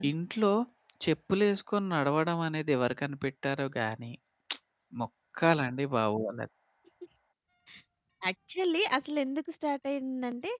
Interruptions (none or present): none